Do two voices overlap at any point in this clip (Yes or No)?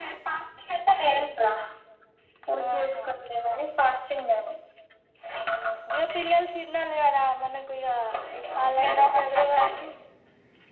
Yes